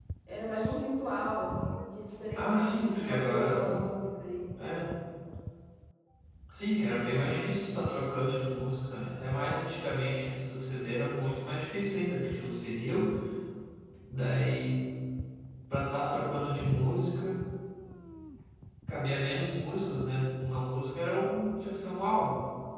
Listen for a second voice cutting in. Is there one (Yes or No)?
Yes